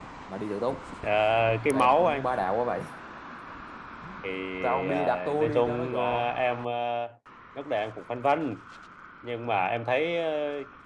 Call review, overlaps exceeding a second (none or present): present